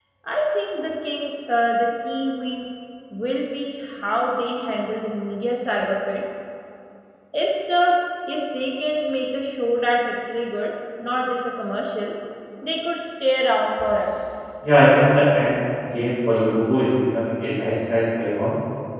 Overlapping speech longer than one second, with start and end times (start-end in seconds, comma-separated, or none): none